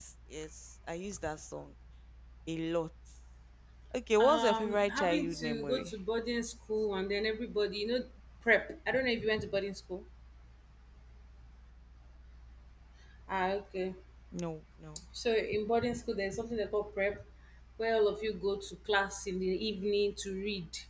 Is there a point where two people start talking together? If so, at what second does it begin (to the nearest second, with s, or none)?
4 s